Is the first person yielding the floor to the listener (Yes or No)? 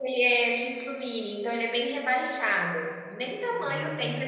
No